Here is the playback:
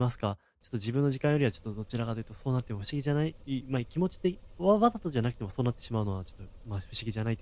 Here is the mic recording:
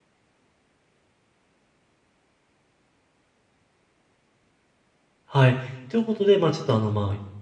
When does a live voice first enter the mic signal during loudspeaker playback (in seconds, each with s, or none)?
5.2 s